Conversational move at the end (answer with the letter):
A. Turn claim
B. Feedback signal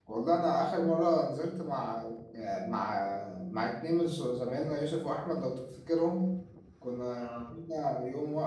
B